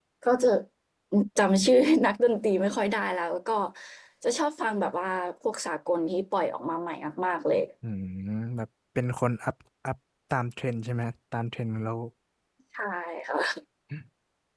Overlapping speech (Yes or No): No